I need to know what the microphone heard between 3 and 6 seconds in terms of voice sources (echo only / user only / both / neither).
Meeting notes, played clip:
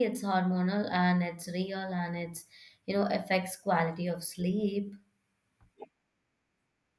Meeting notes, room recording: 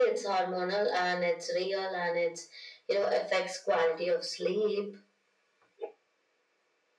echo only